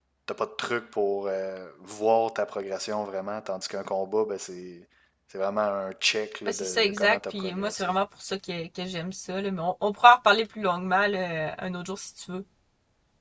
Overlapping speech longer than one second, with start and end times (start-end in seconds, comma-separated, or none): 6.5-7.9